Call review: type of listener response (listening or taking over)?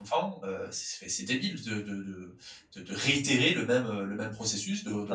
taking over